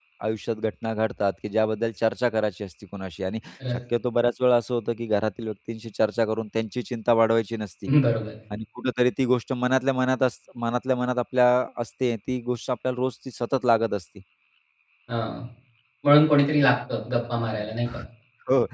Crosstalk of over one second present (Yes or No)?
No